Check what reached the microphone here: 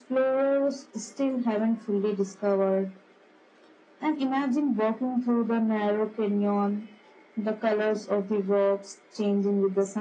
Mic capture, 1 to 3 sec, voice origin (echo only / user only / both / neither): echo only